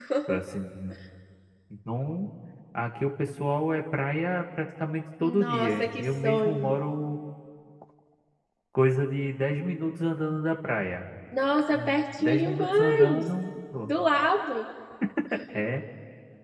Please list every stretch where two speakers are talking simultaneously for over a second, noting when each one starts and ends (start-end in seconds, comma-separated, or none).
5.2-6.7, 11.7-13.2